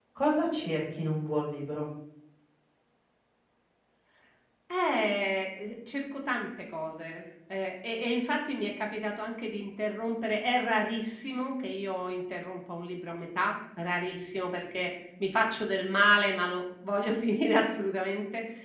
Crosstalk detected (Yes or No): No